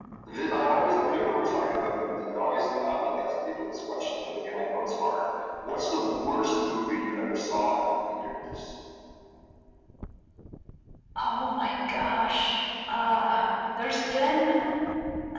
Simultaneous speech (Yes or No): No